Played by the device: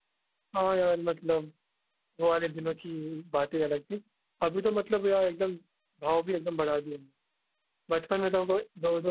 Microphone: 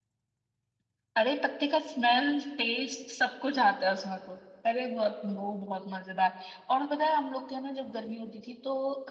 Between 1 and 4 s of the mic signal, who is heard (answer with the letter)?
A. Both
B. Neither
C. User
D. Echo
C